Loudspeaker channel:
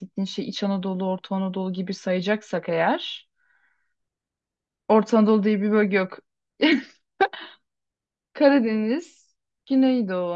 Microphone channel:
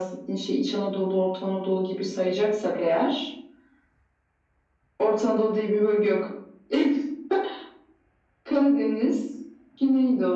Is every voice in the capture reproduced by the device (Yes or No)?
Yes